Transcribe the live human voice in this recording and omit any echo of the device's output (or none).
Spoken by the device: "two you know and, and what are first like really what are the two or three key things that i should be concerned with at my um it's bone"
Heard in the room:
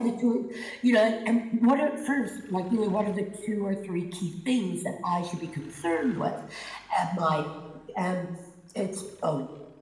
none